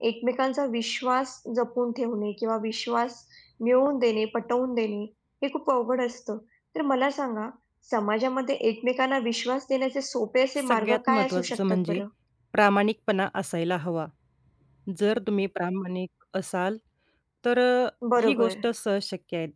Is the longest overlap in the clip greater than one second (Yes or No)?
Yes